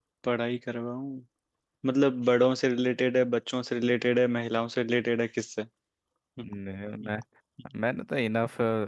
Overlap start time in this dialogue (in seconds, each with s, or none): none